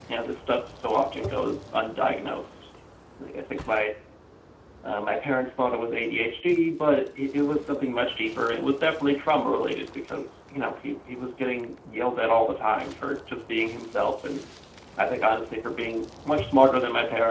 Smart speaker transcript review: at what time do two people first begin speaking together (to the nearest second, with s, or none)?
none